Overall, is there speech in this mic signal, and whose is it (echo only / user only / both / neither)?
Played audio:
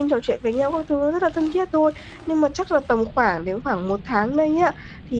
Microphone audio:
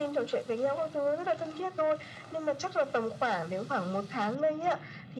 echo only